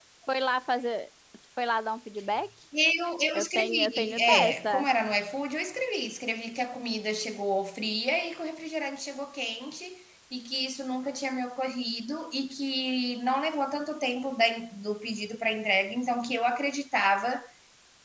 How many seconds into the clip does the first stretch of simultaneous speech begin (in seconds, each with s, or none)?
3.3 s